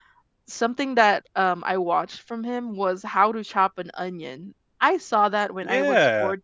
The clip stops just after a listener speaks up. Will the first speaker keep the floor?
No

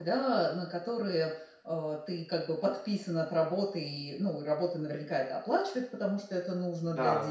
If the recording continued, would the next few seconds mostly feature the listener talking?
No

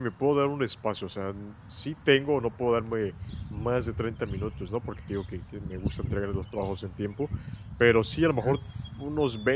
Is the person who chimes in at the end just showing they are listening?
Yes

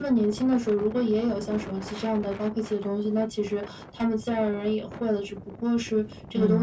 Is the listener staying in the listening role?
Yes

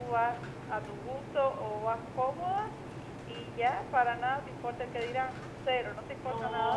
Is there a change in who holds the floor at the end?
Yes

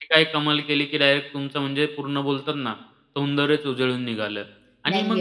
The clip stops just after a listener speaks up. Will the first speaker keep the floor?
Yes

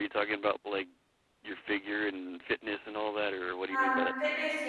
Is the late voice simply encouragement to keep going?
No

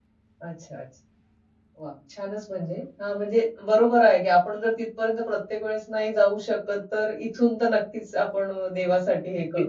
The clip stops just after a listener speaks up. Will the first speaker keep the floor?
No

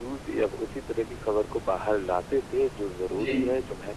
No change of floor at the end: Yes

